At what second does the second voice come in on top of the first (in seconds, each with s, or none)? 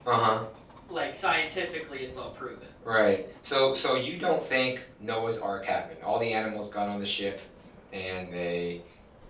none